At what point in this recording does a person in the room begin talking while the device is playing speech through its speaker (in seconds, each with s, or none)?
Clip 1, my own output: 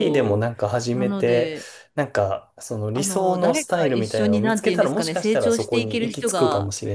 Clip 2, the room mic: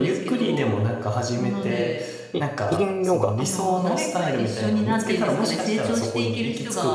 2.3 s